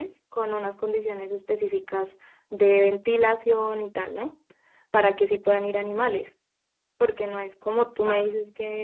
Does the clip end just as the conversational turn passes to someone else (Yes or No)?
No